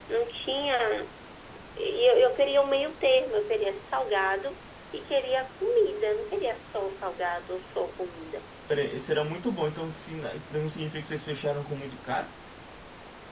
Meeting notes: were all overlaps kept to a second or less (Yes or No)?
Yes